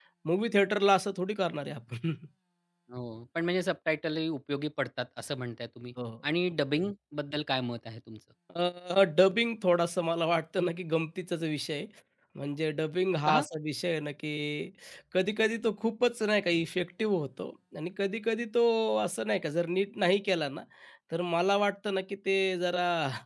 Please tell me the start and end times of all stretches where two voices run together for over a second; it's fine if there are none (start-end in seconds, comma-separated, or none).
none